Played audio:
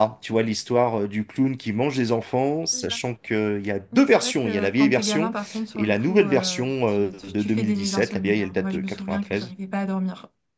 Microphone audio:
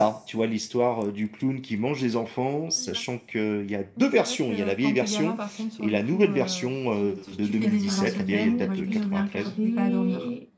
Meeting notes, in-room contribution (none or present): present